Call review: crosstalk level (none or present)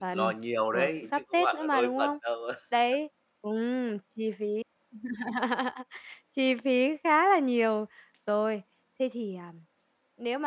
present